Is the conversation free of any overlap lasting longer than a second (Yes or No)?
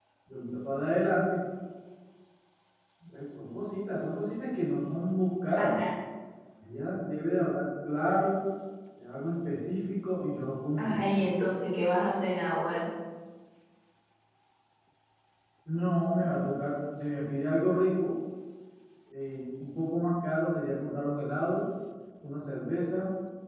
Yes